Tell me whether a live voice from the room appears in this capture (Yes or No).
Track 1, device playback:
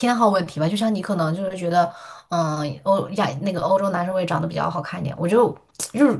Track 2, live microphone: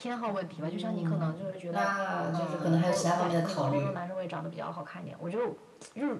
Yes